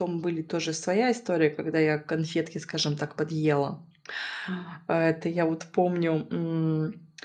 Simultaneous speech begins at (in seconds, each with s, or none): none